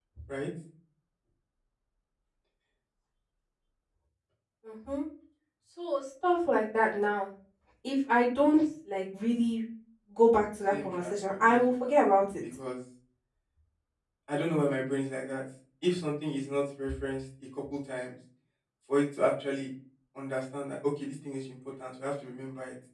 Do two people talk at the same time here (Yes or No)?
Yes